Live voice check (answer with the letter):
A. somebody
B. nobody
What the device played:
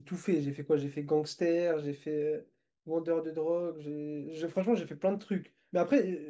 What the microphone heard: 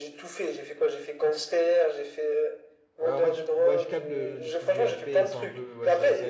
A